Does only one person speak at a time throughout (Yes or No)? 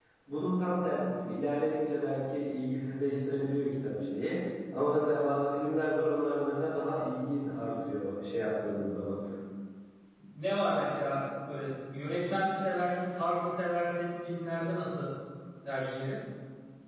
Yes